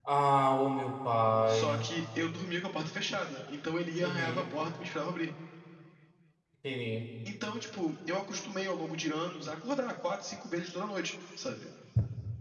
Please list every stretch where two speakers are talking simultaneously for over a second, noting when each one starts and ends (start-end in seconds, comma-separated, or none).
none